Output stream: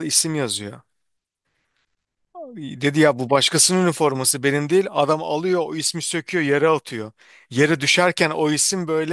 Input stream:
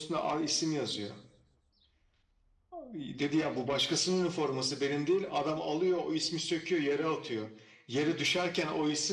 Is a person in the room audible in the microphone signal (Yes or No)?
No